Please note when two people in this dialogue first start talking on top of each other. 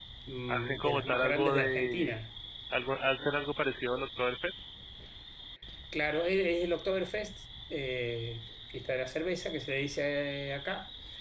1 s

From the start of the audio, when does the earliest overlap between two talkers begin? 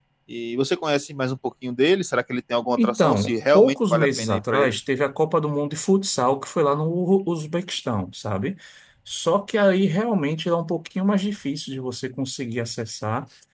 3 s

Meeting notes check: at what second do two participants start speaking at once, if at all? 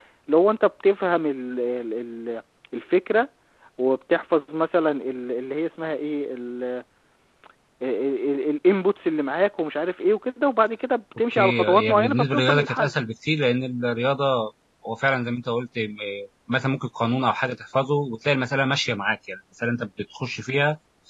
11 s

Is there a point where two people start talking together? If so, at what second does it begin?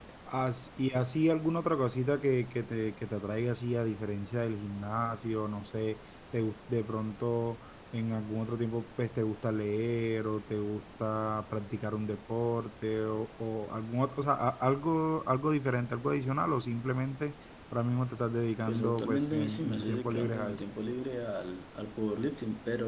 19 s

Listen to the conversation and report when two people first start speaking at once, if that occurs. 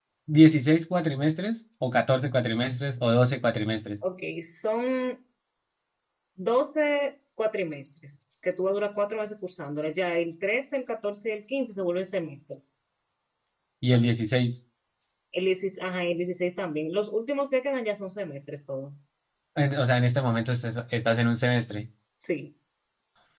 none

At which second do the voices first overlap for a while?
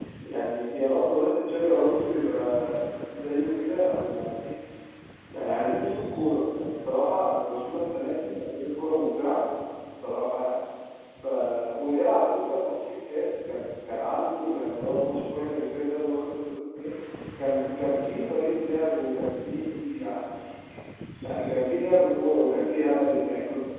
none

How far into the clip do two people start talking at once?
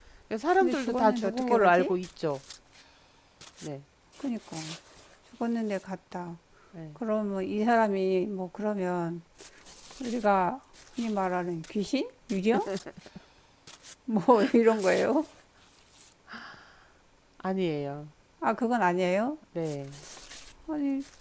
1 s

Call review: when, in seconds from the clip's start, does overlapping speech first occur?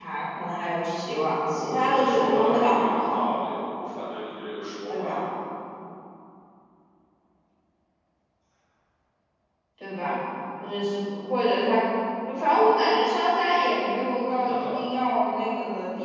2 s

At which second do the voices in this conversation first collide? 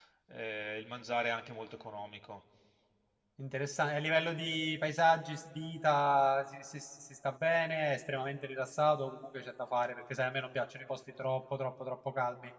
none

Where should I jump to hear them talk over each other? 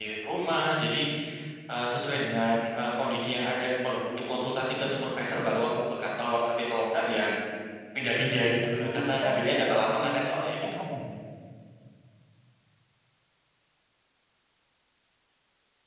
9 s

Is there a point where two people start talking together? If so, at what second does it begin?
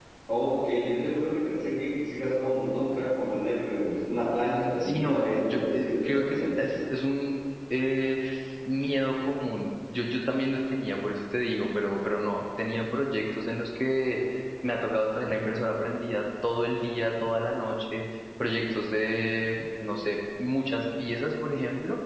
5 s

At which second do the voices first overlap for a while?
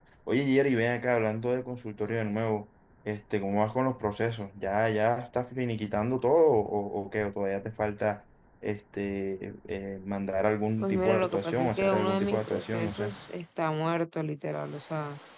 11 s

